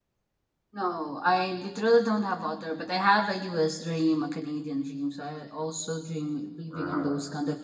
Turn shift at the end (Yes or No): No